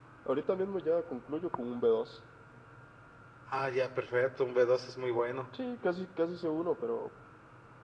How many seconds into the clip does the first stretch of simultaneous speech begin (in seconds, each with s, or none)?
none